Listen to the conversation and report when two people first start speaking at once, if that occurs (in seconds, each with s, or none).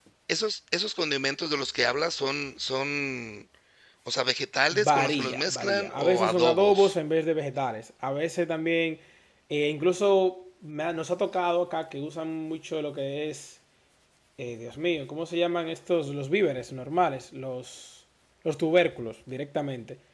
4.7 s